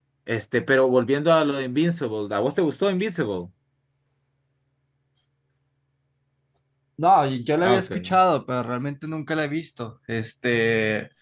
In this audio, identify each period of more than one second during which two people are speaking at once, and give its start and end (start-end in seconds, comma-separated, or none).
none